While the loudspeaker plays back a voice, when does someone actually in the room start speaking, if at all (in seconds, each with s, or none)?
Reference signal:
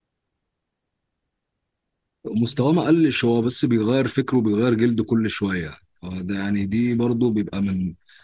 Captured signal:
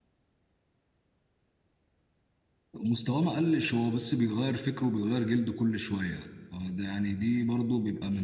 none